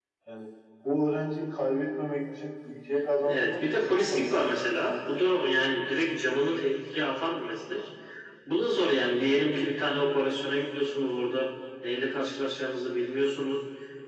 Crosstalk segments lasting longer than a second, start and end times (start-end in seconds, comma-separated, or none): 3.2-4.6